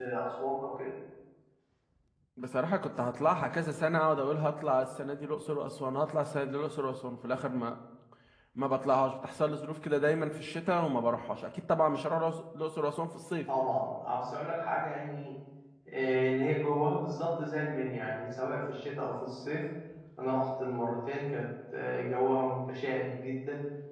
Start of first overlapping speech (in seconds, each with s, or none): none